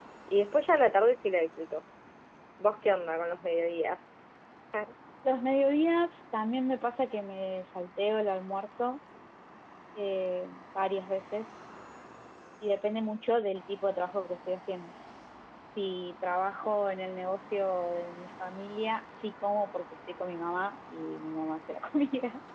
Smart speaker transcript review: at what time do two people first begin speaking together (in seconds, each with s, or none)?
none